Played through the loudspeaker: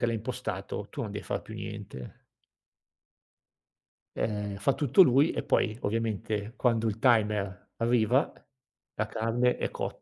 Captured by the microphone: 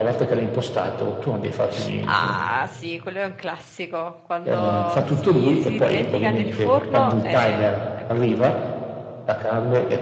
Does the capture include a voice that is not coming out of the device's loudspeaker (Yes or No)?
Yes